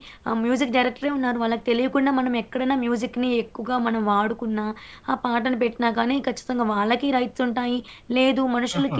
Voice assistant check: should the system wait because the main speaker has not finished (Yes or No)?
Yes